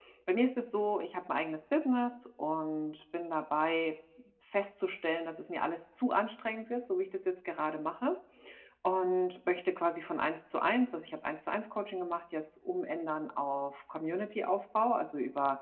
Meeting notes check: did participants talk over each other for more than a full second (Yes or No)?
No